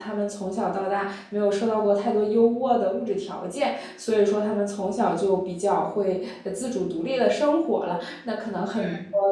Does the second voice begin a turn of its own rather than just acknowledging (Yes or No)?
No